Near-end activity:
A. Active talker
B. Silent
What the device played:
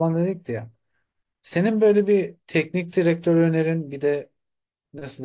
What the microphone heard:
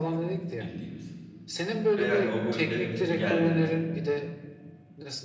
A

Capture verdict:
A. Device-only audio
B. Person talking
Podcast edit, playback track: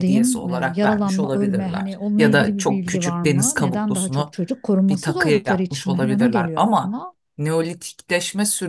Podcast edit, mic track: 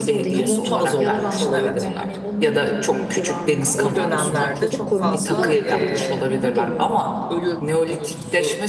B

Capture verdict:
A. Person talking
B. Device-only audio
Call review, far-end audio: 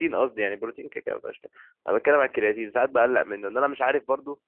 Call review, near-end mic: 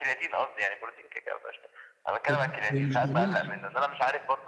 A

